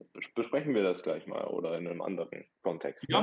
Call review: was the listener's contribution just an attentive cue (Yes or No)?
No